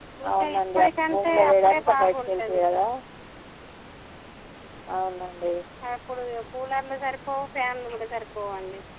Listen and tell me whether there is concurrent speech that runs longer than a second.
Yes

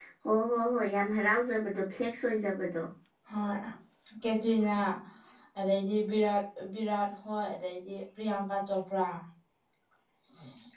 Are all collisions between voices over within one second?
Yes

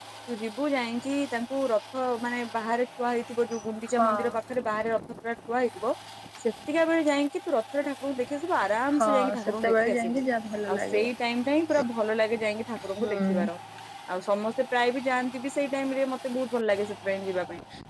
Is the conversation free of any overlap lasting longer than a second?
No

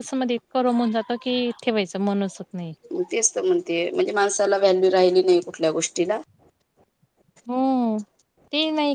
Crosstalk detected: No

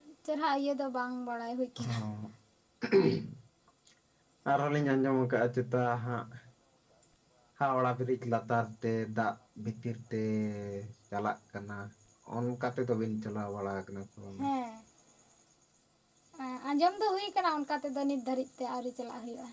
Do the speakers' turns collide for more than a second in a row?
No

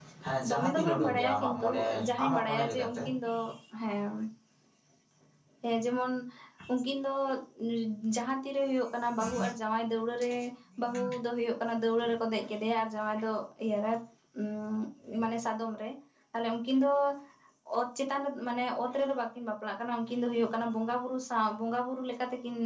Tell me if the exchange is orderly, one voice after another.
No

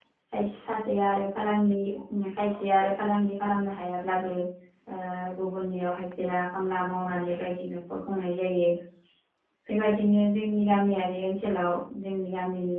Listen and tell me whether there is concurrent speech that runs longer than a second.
No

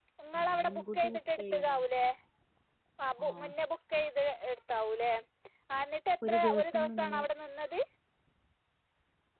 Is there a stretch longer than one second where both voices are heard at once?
Yes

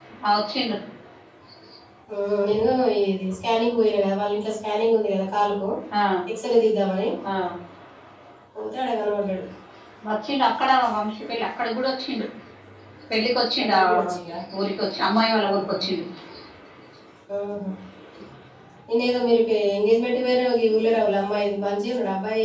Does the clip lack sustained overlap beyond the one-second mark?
Yes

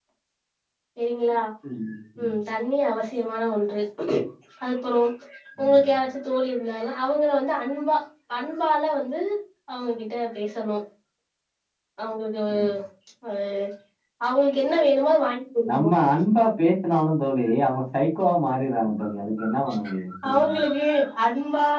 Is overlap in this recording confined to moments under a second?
Yes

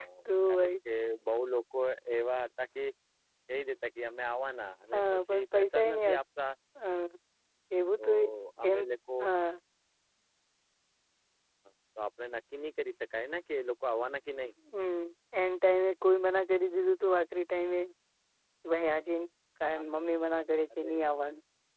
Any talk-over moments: Yes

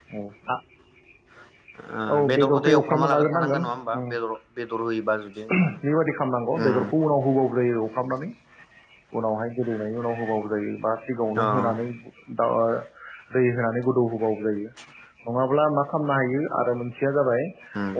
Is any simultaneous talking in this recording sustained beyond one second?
Yes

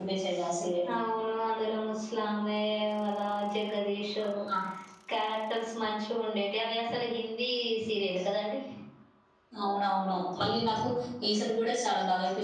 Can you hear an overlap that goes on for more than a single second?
No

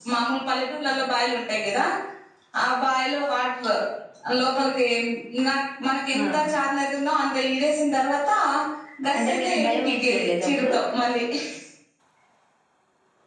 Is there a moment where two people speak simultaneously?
Yes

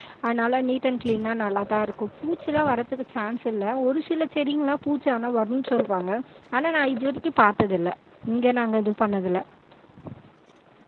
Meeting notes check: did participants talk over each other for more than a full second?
No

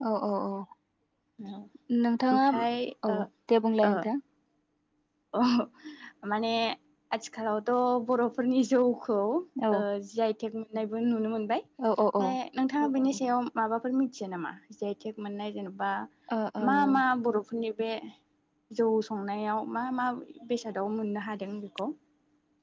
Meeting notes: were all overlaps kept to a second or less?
Yes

